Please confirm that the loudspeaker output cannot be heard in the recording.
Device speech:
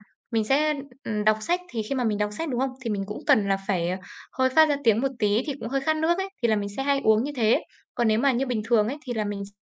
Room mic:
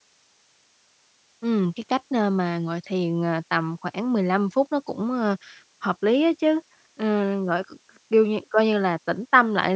Yes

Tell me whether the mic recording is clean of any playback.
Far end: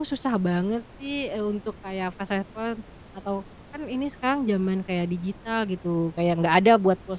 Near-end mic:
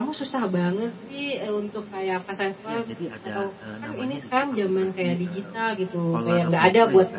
No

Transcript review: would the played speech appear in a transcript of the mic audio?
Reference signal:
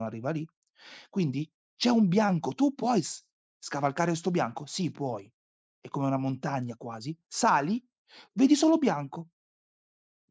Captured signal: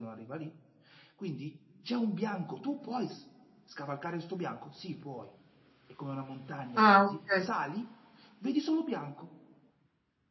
Yes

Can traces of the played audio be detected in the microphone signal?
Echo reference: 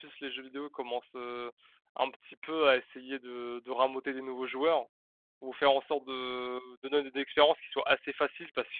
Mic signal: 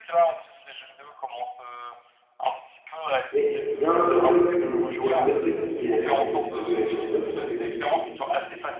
Yes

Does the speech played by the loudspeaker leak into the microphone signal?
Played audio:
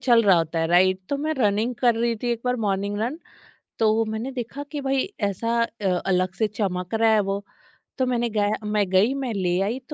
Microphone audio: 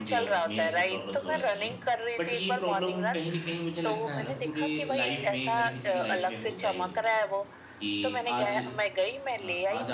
Yes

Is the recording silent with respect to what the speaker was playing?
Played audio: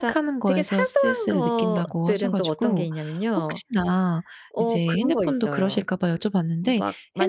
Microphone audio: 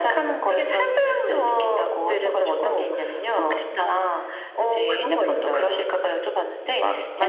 No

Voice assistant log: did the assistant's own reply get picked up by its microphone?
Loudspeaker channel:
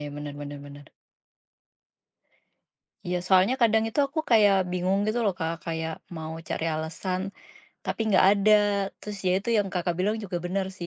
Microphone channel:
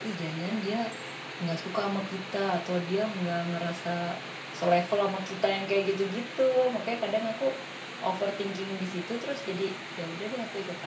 No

